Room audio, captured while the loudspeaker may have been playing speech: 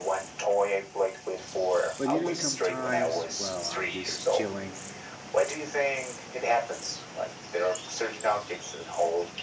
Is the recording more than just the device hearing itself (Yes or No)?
Yes